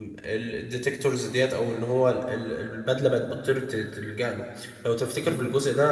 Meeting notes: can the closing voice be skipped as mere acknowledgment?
Yes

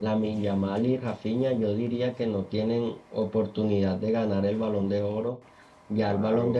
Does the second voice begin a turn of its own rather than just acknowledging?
No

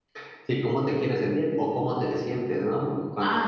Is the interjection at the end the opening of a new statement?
No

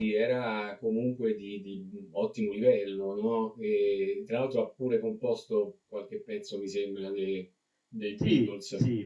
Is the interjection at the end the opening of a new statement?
Yes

